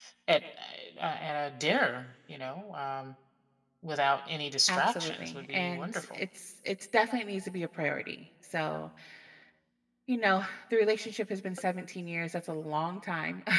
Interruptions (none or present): present